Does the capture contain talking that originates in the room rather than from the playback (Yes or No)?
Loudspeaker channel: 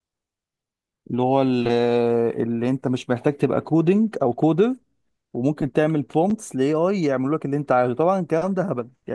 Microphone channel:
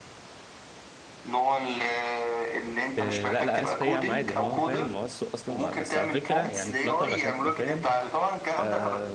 Yes